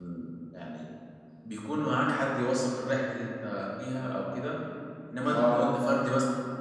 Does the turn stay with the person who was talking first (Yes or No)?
Yes